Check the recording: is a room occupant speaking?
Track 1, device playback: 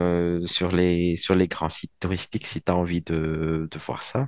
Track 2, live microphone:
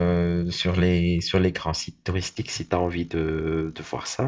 No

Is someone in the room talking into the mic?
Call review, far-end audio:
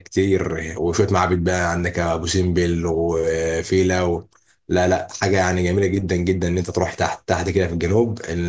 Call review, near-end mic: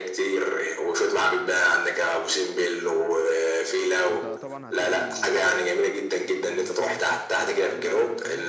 Yes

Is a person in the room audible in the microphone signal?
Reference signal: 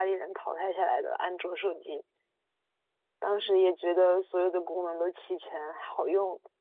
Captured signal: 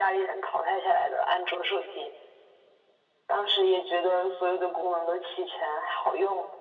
No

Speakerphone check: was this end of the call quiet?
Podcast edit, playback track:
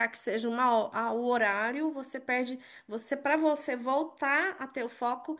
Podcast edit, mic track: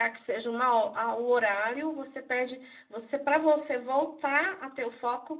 Yes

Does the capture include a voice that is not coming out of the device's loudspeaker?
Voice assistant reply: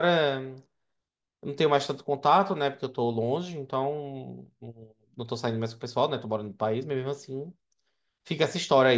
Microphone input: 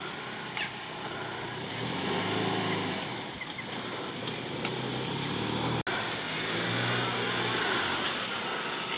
No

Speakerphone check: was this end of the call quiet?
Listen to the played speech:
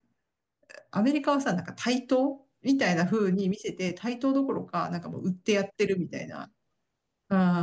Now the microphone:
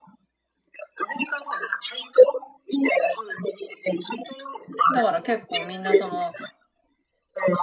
No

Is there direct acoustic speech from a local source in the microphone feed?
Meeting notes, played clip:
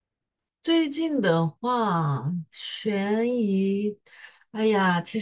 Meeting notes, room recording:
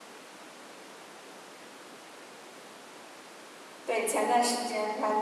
Yes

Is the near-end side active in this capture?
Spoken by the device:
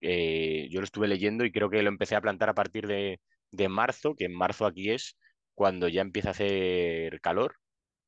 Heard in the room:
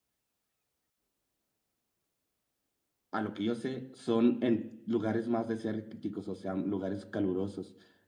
Yes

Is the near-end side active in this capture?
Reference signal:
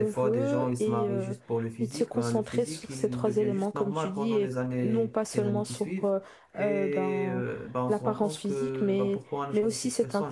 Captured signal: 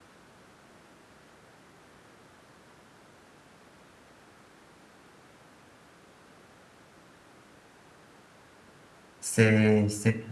Yes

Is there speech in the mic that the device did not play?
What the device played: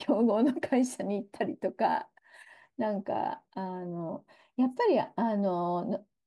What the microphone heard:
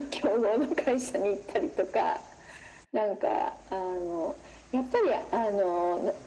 No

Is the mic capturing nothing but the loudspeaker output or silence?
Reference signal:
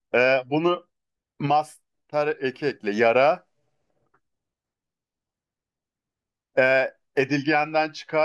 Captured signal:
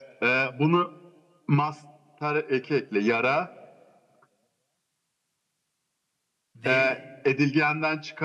No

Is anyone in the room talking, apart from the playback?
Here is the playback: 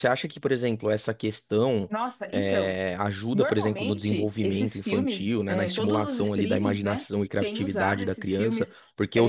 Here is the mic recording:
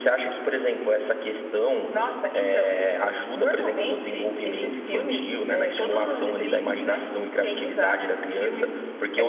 No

